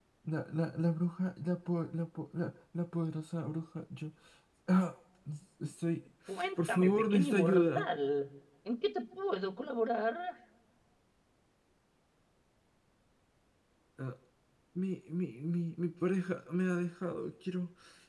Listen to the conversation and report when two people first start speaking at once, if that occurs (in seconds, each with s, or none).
6.6 s